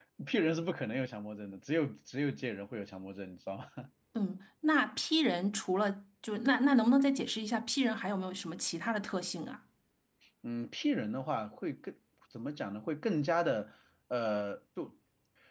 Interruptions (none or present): none